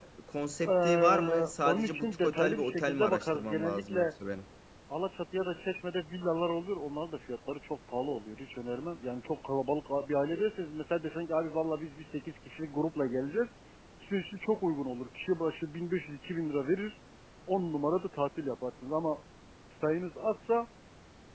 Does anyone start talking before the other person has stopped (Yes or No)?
Yes